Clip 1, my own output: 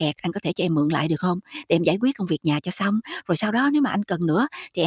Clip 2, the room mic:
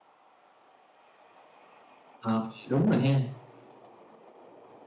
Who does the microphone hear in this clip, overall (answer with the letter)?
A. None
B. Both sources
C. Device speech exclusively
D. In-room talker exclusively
D